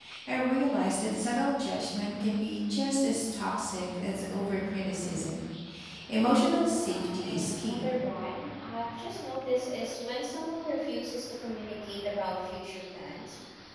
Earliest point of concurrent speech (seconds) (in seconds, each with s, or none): 6.7 s